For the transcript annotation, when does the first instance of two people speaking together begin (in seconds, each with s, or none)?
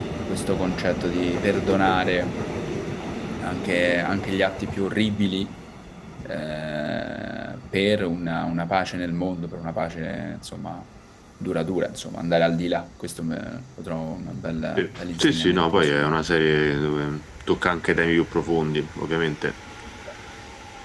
14.8 s